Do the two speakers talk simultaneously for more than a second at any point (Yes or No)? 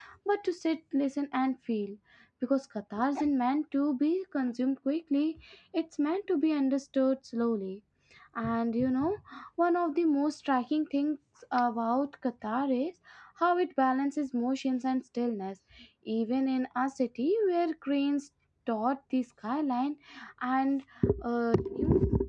No